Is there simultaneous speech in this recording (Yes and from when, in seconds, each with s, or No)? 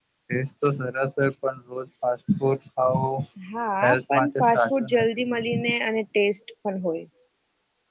Yes, from 3.9 s